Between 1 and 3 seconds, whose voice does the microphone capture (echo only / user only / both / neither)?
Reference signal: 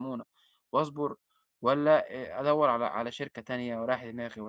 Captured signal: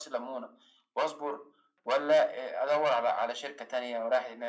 echo only